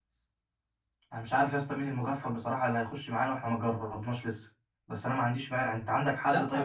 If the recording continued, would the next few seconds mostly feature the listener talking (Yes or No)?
Yes